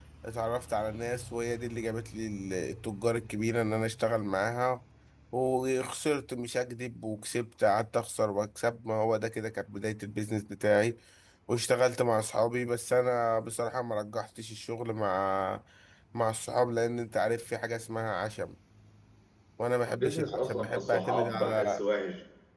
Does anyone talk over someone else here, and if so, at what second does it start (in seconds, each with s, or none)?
19.9 s